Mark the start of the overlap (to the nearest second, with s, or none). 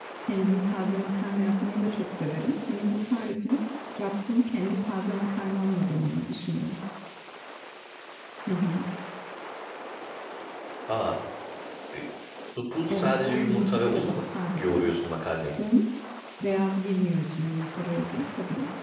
13 s